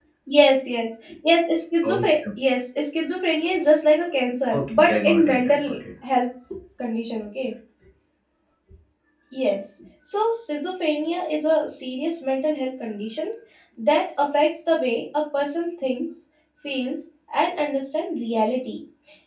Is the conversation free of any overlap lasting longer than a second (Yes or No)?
No